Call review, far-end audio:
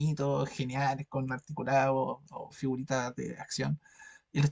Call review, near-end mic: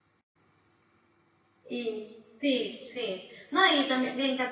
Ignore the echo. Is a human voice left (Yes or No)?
Yes